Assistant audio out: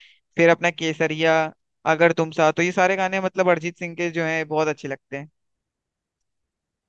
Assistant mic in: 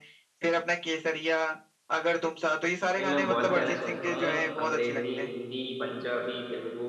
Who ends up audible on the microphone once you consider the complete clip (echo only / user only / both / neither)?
both